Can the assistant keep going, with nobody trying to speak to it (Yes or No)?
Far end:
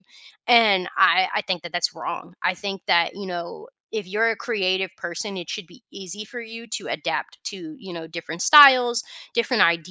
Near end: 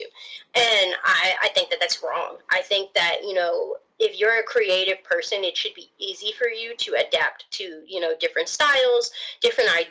Yes